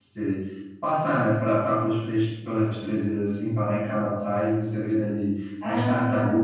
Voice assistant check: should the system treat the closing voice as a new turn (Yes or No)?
No